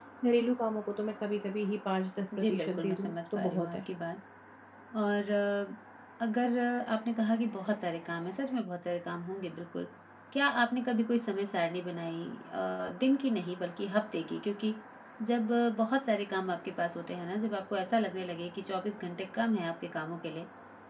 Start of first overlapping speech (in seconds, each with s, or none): 2.3 s